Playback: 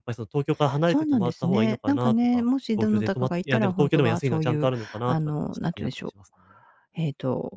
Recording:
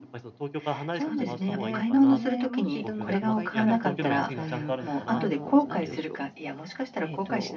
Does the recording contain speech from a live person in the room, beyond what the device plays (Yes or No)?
Yes